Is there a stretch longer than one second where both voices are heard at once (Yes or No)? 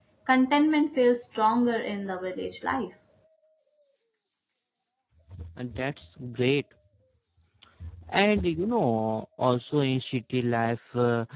No